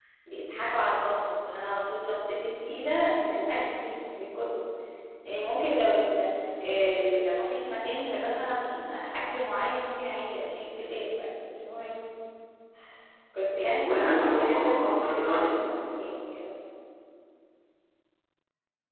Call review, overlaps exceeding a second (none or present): present